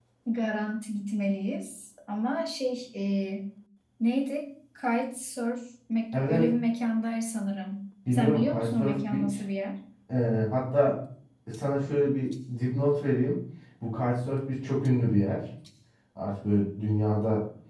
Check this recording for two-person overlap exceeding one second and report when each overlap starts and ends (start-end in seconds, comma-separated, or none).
8.1-9.3